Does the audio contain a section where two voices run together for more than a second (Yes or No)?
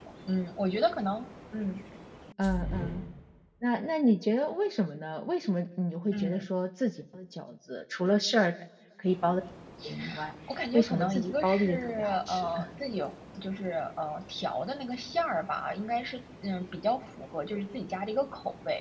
Yes